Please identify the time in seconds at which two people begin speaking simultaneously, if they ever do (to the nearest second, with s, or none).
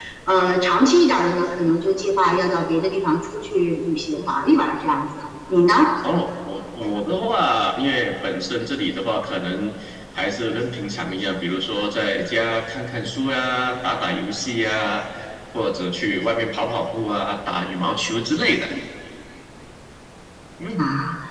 none